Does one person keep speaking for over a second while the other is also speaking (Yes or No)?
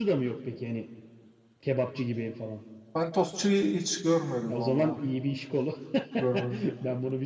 No